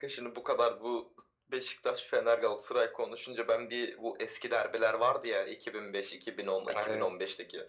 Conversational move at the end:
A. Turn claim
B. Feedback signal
B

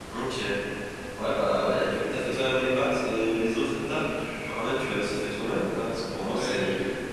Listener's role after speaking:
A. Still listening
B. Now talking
A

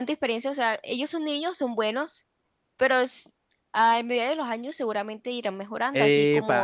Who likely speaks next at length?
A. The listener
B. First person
A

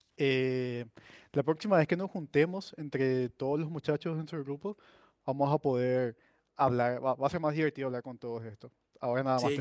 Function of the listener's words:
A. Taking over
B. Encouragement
A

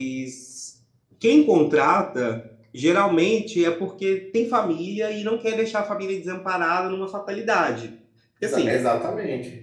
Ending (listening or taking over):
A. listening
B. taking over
B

